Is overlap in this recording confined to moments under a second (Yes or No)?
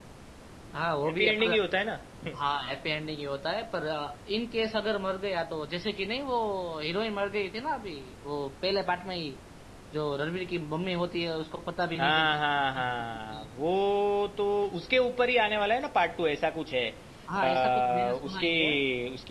No